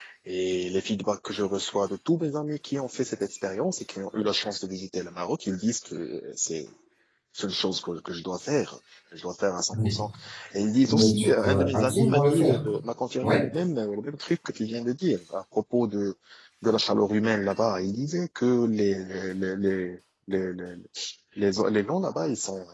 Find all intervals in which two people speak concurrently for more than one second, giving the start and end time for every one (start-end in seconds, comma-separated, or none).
10.9-12.6